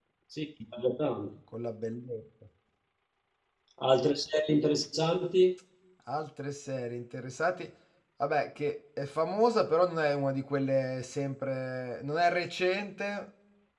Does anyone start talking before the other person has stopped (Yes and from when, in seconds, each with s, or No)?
No